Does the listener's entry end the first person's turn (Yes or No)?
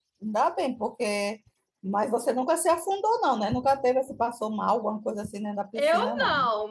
Yes